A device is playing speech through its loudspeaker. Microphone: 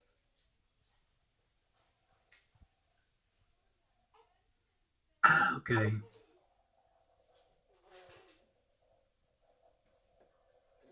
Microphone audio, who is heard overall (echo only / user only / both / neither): user only